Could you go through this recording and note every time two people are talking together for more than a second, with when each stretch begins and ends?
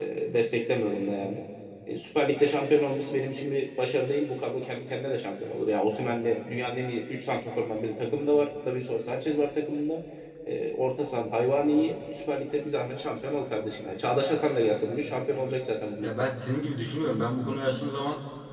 none

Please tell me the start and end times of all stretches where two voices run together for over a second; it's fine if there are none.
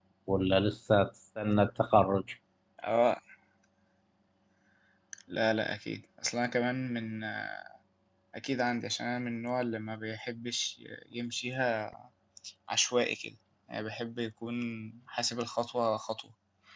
none

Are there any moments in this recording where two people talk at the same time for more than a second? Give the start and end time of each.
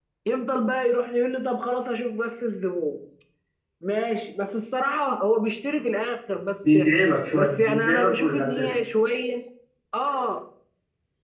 7.4-8.8

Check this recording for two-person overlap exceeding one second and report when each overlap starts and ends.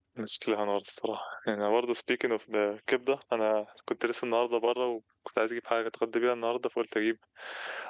none

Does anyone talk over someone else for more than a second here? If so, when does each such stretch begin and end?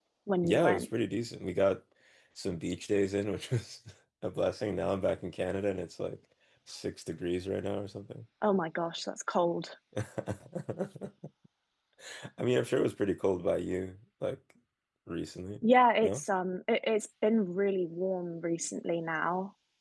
none

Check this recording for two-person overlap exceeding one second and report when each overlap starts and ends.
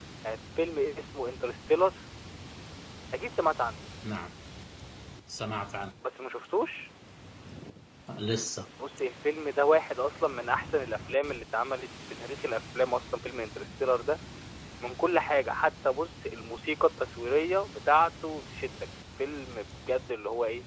none

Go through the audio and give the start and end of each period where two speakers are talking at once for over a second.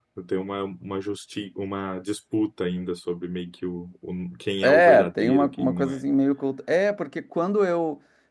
4.6-6.0

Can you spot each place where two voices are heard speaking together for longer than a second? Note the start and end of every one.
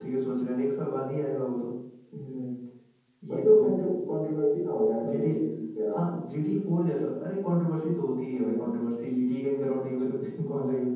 none

